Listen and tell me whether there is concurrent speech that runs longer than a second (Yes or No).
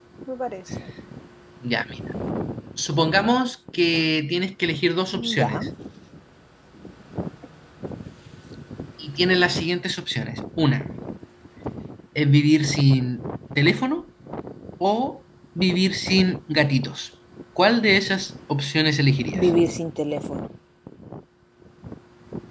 No